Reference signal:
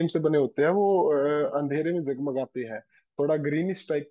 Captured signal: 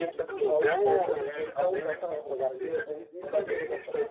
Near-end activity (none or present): present